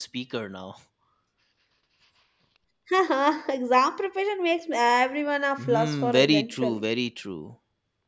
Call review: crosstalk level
present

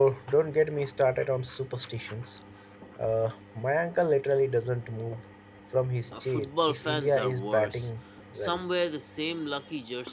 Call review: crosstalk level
present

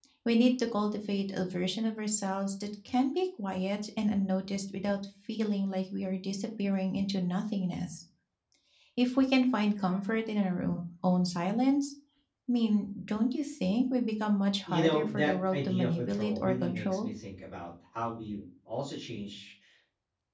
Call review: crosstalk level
present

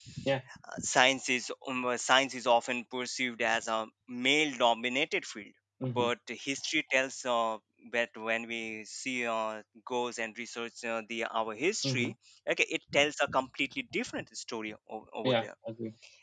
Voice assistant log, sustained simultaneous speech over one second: none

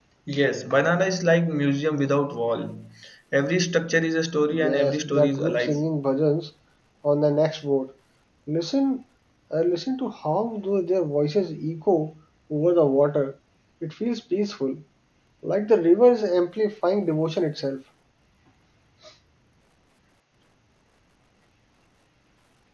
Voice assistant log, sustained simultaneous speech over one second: present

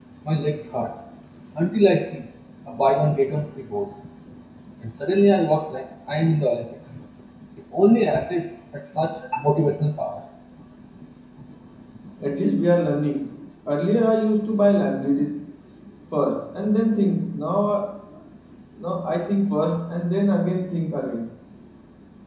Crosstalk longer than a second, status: none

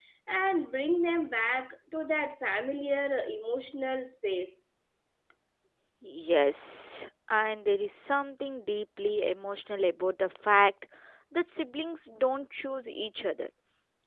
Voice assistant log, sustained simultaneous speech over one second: none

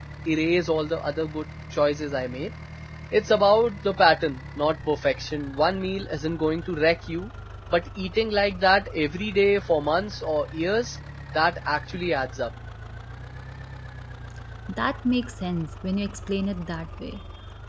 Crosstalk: none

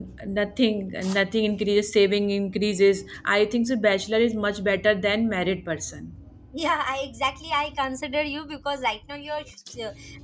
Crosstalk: none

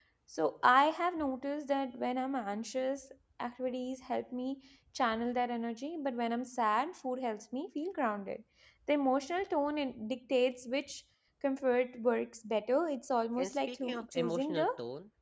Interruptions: present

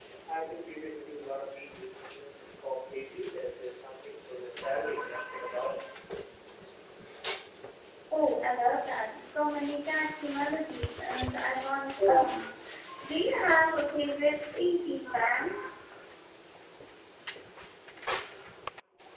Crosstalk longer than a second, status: none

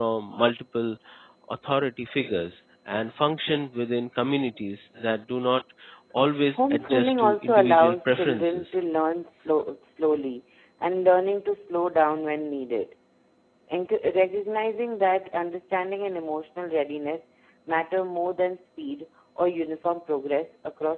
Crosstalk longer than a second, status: present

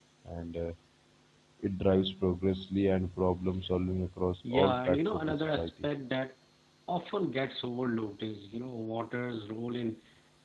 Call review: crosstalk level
present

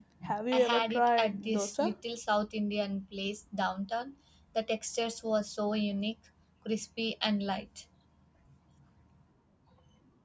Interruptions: present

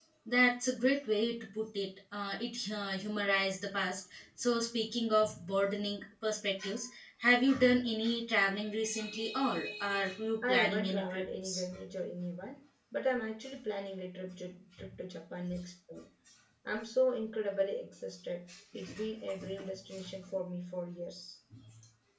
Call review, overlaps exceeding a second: present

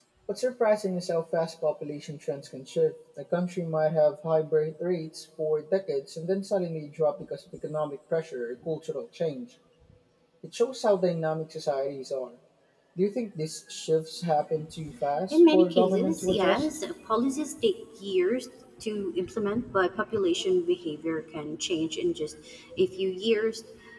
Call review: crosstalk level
present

